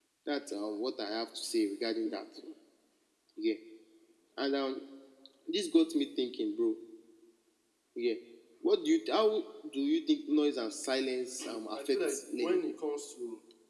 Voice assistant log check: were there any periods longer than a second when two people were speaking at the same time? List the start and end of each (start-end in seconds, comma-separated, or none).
11.4-12.6